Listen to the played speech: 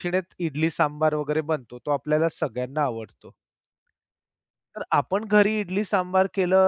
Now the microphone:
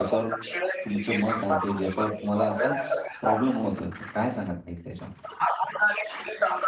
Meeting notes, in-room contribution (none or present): present